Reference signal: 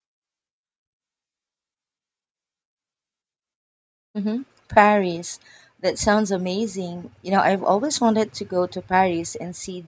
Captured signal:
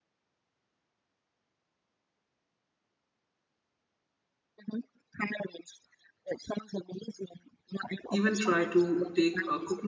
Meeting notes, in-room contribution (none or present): present